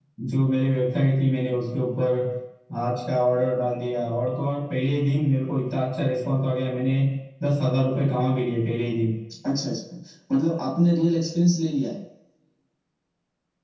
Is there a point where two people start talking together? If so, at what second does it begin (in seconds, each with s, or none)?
none